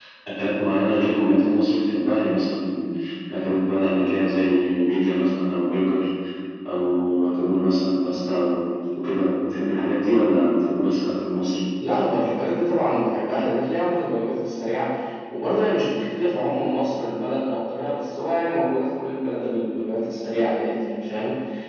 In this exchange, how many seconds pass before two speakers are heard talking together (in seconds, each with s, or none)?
none